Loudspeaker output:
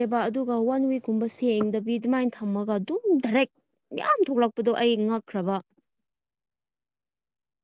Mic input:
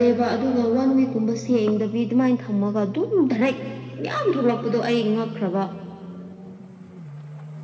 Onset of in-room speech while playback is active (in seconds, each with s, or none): none